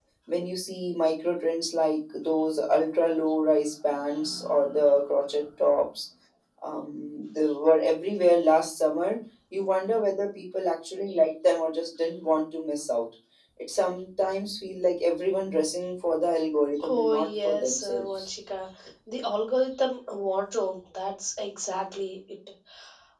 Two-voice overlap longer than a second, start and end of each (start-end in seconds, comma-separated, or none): 16.8-18.3